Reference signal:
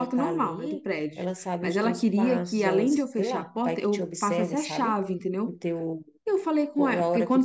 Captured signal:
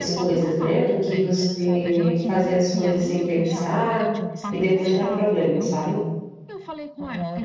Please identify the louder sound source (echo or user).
user